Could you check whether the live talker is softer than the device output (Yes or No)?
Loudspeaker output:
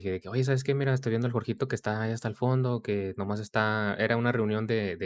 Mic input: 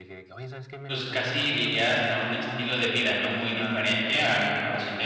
No